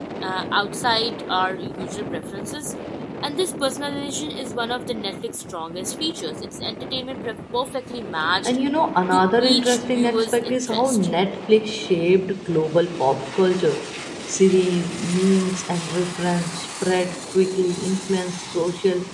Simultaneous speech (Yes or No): Yes